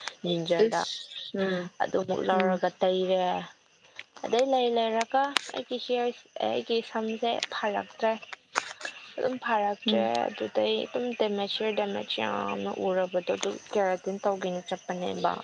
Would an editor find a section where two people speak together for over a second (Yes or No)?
No